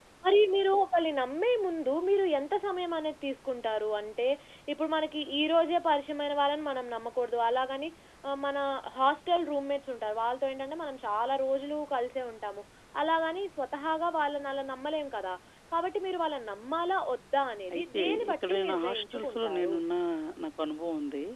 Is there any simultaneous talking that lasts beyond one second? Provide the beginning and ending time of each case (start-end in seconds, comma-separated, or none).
17.7-19.8